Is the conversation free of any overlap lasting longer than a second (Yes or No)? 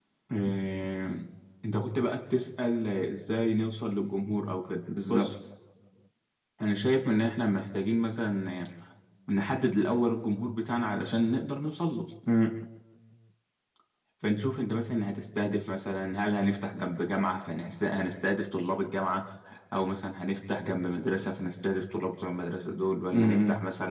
Yes